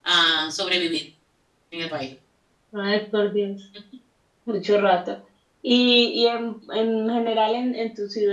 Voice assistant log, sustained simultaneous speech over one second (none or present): none